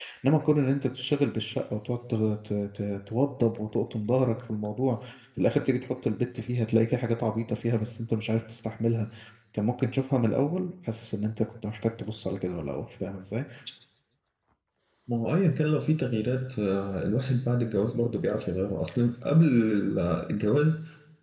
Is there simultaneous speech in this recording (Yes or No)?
No